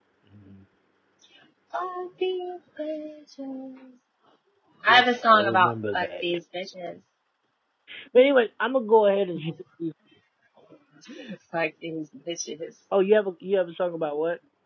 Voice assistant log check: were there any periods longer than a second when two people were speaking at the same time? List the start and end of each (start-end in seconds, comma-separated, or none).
4.9-6.1